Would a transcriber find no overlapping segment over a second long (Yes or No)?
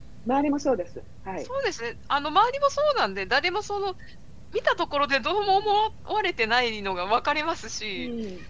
Yes